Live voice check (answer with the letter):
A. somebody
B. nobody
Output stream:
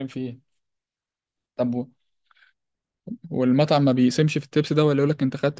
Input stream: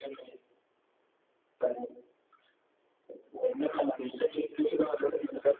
B